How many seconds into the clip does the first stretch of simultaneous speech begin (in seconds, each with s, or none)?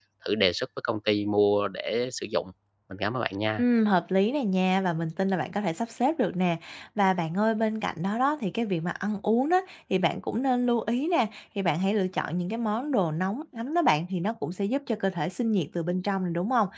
none